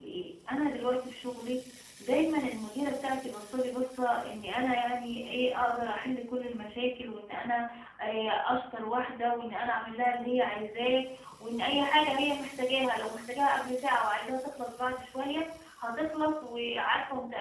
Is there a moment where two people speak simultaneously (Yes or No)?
No